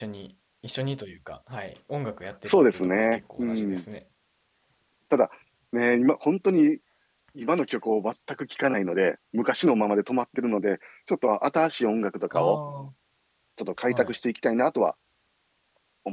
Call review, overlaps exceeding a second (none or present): present